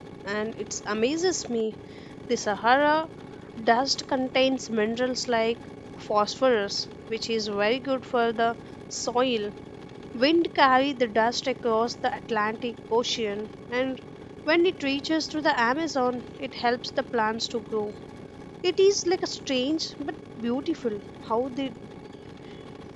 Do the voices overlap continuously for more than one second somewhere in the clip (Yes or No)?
No